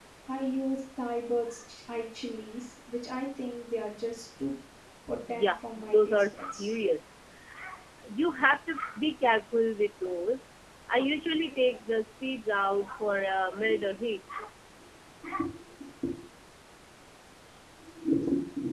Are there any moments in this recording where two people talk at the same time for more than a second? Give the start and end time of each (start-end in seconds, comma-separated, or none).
5.3-6.7